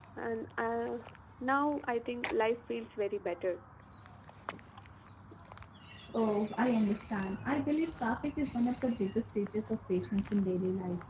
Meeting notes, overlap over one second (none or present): none